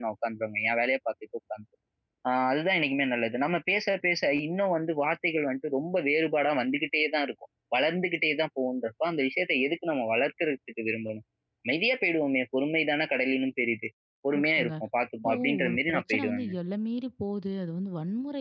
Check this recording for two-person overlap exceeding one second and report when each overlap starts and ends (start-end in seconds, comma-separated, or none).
15.2-16.5